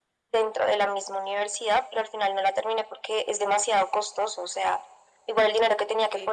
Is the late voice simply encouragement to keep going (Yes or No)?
Yes